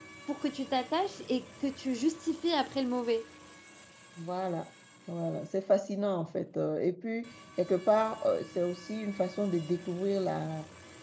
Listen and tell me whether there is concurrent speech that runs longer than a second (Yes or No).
No